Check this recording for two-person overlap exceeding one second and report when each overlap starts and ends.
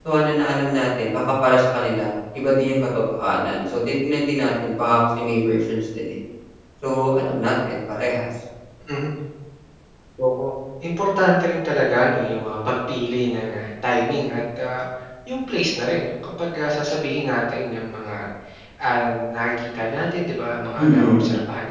none

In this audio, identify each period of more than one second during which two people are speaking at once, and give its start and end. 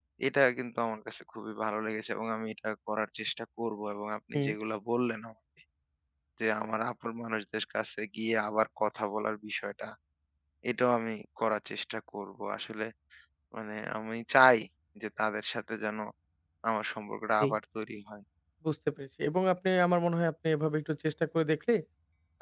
none

